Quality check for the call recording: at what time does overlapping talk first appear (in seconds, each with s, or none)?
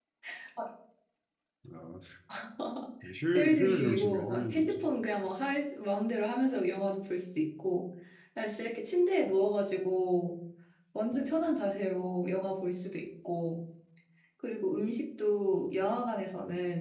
3.4 s